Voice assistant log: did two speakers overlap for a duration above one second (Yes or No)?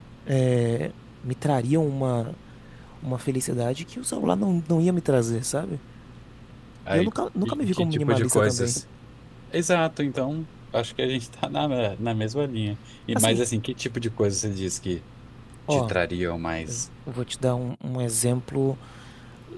Yes